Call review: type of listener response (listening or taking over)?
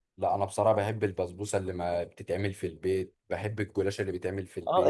taking over